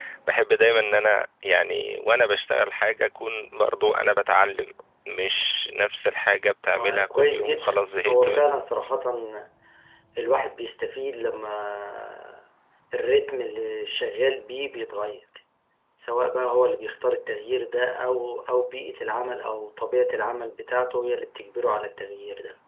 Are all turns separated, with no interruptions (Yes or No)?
No